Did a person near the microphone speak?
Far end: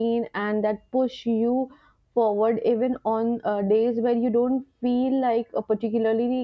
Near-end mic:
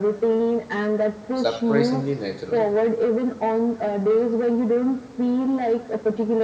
Yes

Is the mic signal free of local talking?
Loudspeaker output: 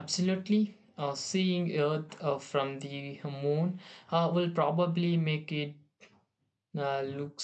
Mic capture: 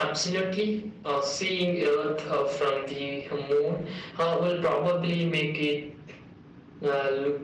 Yes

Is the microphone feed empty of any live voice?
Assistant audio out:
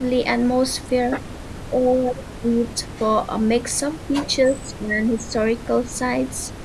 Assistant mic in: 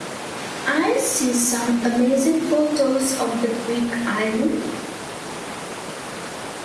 No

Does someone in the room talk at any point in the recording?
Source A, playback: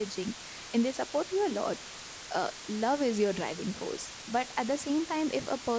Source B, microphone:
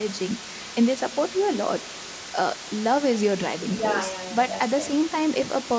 Yes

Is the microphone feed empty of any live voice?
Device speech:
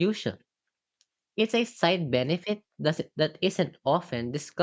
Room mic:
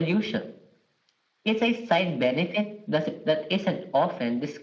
Yes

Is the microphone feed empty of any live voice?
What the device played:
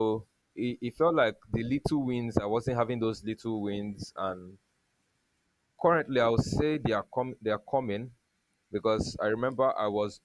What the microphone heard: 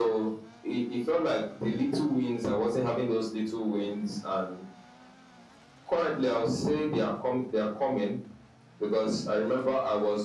Yes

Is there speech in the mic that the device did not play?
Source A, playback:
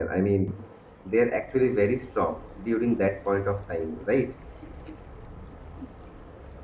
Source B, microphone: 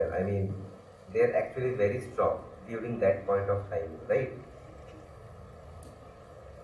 No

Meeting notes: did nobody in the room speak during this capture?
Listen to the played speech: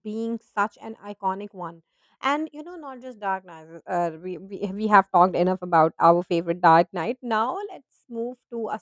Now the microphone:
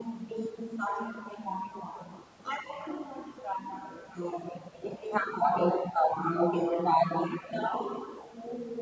Yes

